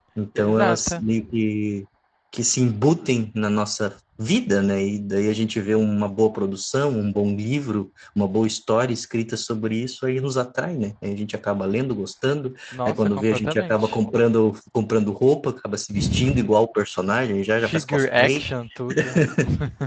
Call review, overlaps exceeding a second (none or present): present